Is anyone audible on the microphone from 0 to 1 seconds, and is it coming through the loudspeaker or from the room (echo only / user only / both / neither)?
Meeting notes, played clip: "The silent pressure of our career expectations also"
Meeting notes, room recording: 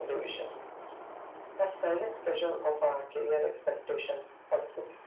echo only